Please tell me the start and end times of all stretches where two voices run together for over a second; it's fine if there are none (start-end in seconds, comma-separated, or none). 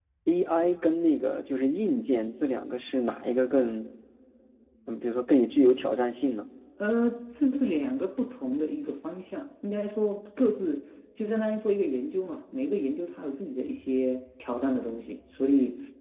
none